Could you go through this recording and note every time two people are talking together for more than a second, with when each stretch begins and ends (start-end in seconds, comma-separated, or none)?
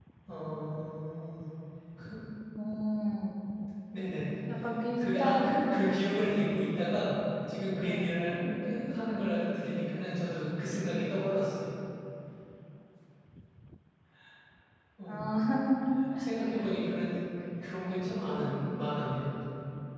5.0-6.3